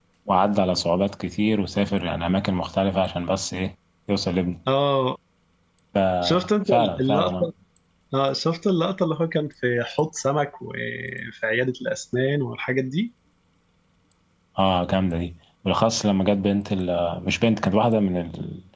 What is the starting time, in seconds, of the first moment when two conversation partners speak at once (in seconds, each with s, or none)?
6.2 s